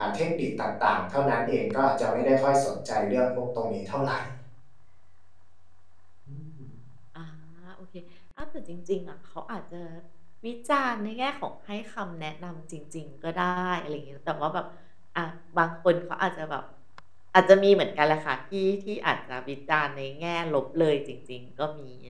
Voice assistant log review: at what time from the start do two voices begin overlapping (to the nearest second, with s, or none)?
none